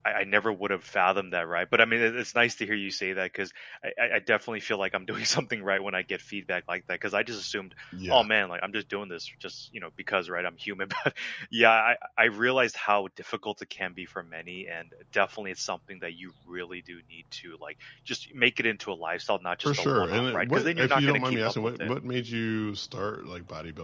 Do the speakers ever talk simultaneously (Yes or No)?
Yes